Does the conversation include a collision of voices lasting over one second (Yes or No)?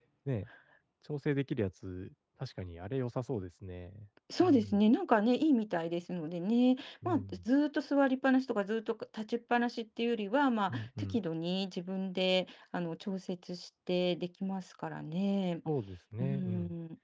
No